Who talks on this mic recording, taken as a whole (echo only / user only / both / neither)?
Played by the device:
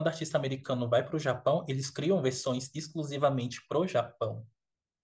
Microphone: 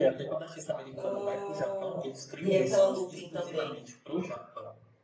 both